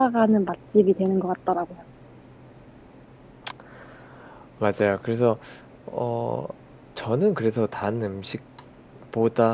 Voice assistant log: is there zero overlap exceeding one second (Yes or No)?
Yes